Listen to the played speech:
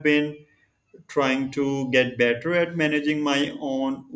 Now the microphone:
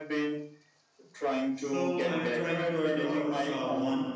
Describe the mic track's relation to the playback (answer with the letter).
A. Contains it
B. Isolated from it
A